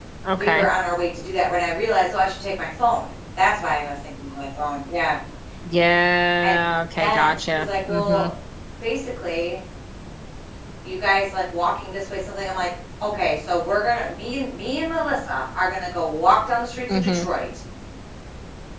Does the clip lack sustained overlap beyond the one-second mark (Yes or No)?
No